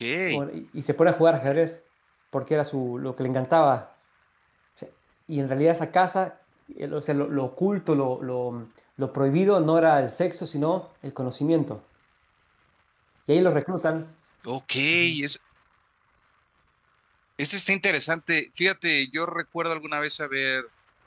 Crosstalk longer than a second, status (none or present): none